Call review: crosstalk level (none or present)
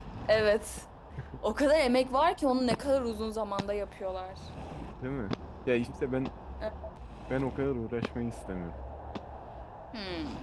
none